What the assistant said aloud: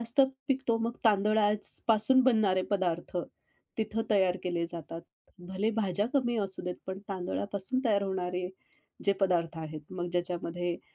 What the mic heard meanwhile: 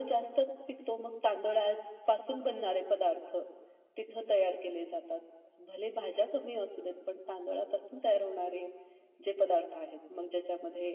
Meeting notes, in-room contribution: none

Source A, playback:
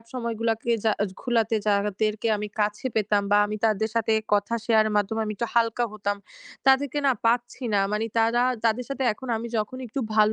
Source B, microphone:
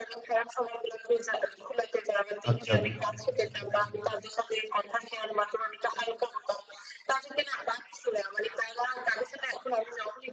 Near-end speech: present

